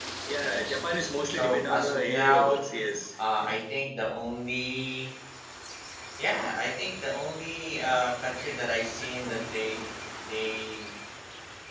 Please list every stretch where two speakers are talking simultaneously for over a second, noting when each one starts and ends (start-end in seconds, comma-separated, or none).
1.3-2.6